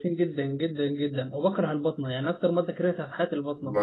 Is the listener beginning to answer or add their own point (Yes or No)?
Yes